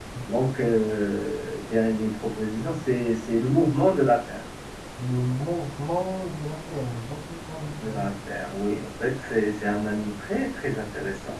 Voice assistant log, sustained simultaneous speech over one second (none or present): none